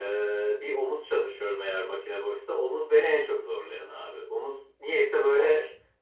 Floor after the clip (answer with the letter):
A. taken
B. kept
B